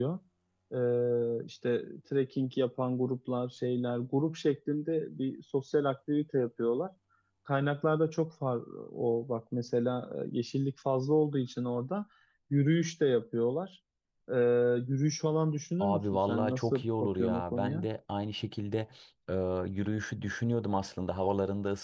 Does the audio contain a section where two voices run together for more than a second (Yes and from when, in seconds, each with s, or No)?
Yes, from 15.8 s